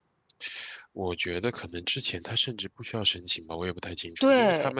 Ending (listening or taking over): listening